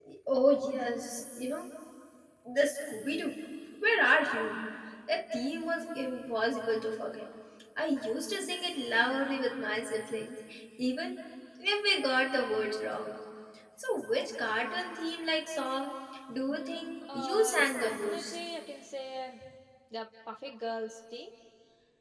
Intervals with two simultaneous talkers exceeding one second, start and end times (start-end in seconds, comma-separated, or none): 17.1-18.4